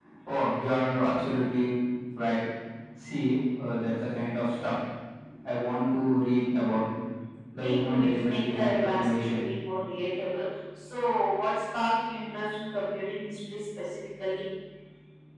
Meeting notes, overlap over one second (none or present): present